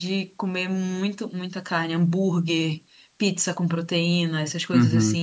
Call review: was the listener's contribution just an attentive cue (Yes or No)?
No